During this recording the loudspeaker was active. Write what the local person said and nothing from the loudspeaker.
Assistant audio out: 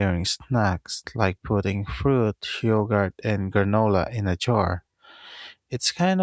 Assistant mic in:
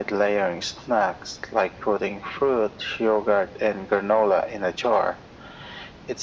none

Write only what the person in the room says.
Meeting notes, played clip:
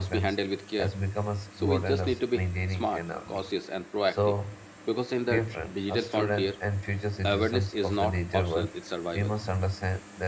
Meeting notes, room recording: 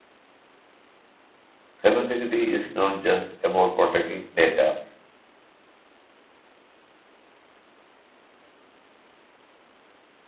Cybersecurity is not just about protecting data,

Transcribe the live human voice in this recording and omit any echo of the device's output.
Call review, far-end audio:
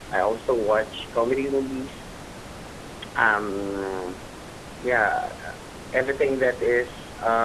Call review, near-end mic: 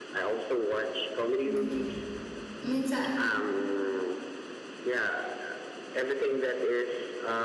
Mm. Means I.

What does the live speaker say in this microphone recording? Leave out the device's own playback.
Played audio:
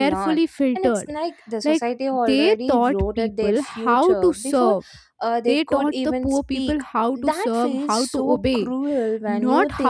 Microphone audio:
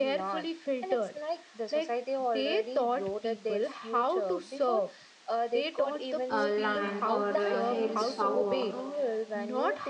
uh, land or uh, held power,

